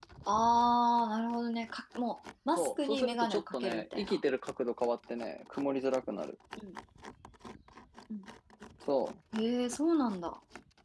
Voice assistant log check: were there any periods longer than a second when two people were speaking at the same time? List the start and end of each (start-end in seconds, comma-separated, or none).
2.6-4.2